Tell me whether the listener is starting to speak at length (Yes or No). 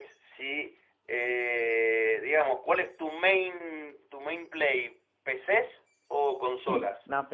Yes